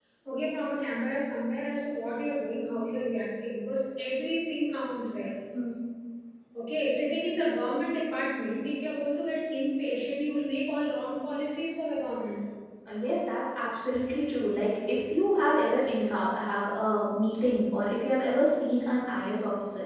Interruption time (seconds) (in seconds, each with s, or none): none